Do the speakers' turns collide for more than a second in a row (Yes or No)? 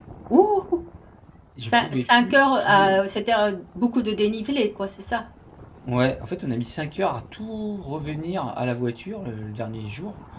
Yes